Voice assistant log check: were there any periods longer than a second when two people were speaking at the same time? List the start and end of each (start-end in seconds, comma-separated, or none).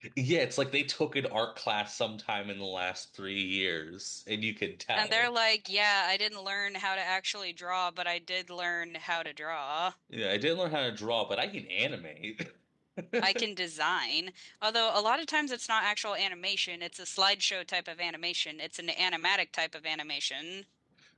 none